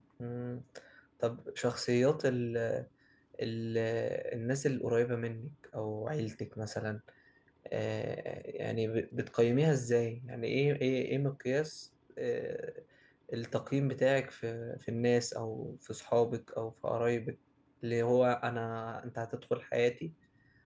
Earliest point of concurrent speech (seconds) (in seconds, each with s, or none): none